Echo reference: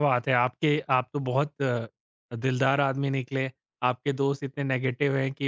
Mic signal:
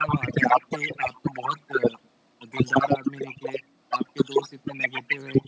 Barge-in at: none

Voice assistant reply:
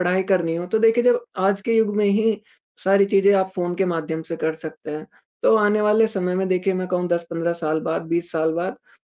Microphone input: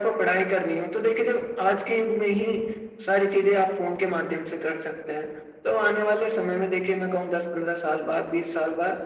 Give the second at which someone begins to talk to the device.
none

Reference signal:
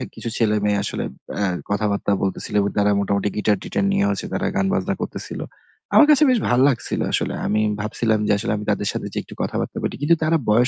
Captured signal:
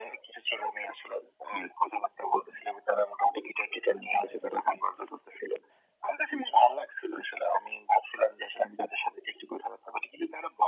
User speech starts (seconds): none

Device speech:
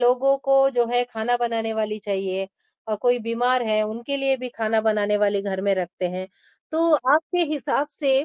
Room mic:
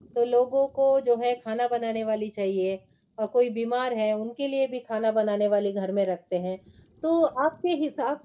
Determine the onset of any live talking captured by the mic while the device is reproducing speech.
none

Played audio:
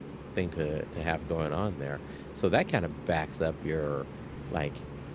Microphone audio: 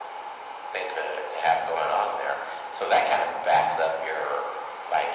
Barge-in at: none

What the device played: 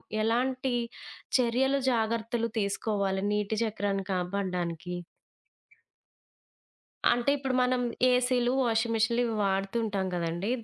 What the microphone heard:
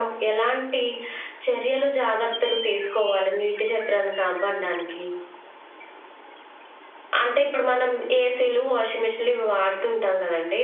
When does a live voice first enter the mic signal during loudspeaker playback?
none

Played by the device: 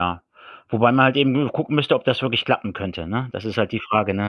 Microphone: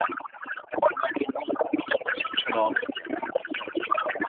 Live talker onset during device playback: 2.4 s

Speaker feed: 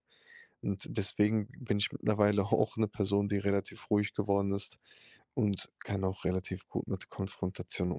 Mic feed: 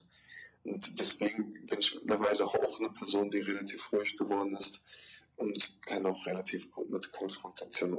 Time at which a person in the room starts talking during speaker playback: none

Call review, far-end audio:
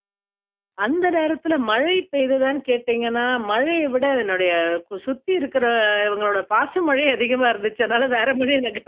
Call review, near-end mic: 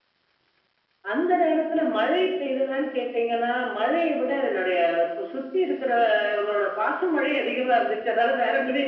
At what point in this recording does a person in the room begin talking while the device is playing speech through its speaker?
none

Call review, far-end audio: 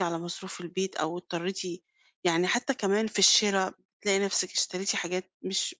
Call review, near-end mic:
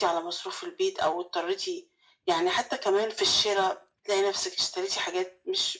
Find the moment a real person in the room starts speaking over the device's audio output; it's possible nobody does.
none

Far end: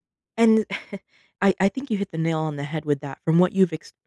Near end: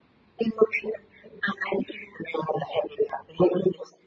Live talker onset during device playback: none

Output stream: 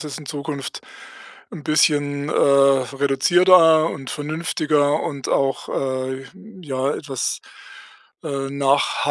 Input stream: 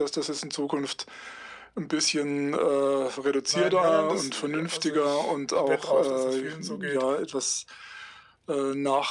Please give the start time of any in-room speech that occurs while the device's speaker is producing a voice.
3.5 s

